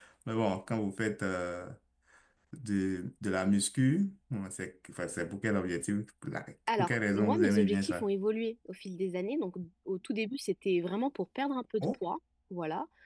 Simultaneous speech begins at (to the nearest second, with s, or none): 7 s